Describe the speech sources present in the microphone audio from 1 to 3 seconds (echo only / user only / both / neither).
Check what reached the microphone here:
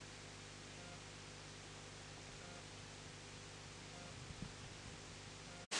neither